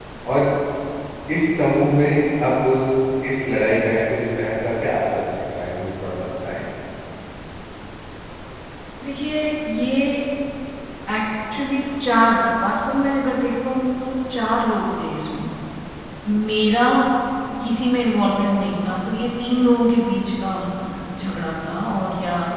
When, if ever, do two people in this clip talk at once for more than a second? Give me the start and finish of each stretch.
none

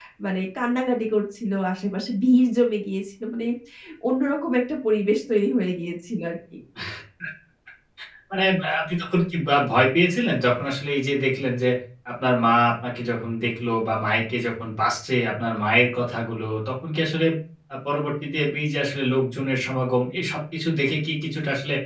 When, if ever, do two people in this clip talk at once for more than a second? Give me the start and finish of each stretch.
none

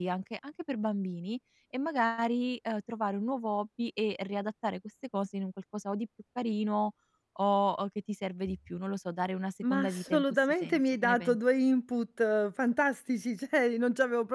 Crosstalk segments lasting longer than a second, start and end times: 9.7-11.4

